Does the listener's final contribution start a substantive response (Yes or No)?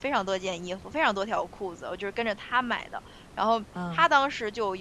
No